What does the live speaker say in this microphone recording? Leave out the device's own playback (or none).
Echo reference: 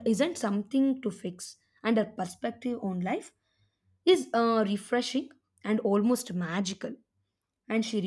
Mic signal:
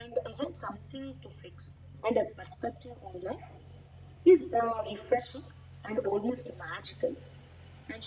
none